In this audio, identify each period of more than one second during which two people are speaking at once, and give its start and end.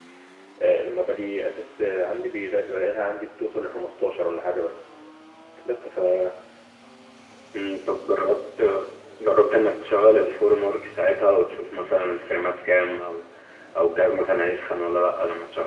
none

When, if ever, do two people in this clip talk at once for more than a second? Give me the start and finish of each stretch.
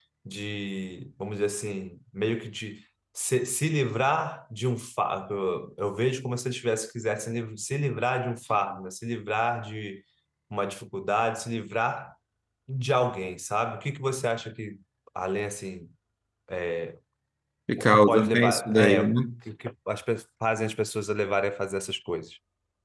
17.8-19.2

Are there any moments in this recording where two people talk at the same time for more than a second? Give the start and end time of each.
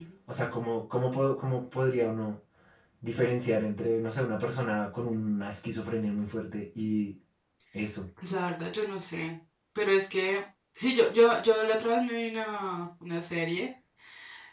none

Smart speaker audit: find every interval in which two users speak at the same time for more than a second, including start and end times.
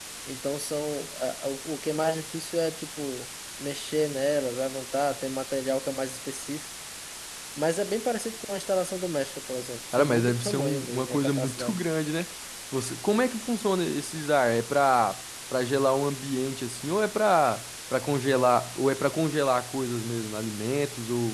9.9-11.8

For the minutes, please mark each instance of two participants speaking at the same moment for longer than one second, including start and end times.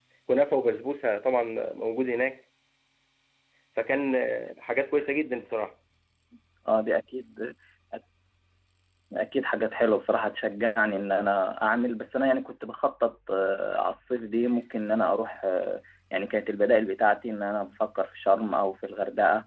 none

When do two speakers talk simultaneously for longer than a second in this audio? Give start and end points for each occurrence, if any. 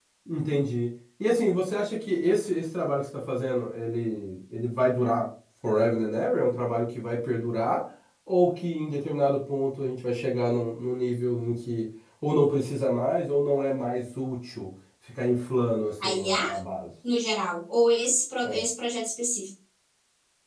none

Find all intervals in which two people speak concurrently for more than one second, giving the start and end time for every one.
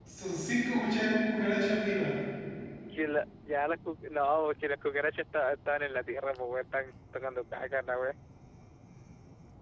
none

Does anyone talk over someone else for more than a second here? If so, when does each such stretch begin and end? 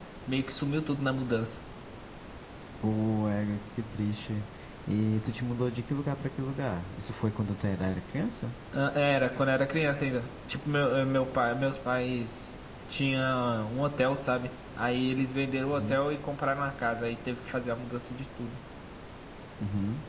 none

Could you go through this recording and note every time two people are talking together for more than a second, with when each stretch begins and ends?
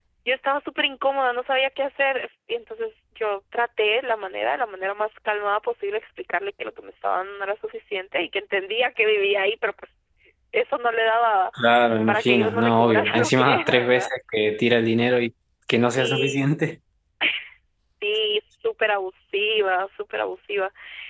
12.1-14.1

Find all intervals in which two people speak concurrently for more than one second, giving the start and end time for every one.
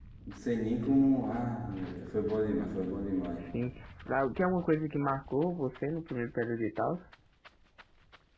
none

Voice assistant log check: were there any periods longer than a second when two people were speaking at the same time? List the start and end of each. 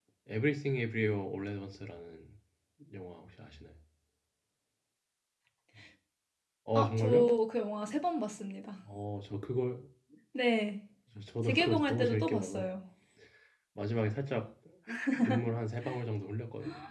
11.4-12.7

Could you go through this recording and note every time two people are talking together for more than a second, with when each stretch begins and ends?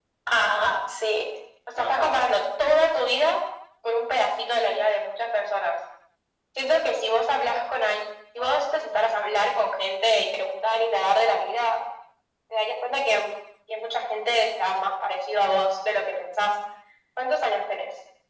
none

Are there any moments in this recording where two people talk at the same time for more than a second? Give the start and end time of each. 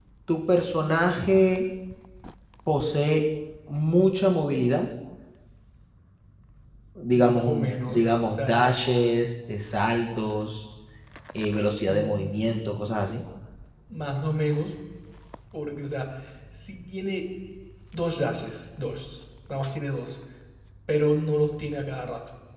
7.1-8.7

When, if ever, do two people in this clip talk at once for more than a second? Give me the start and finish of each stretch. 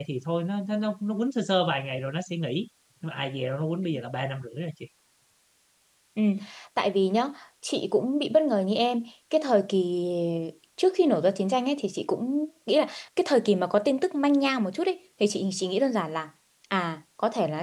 none

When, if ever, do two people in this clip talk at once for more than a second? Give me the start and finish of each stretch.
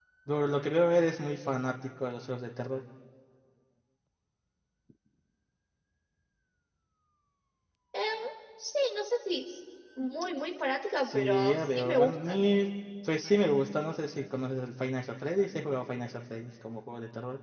11.1-12.4

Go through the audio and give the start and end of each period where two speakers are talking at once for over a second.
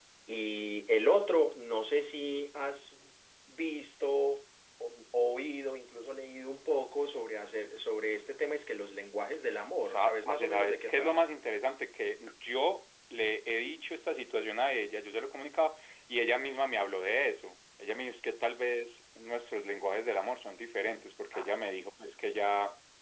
9.8-11.2

